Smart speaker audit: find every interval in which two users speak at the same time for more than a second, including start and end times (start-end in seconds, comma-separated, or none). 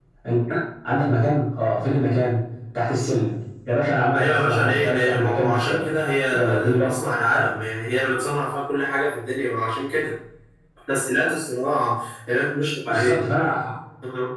4.1-5.8, 6.3-7.5